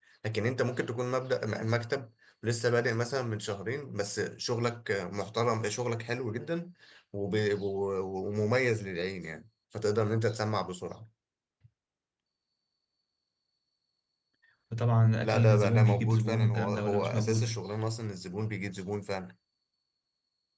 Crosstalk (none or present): present